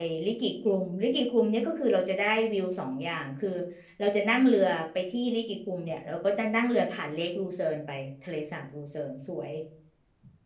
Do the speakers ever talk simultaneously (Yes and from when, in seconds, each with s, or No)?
No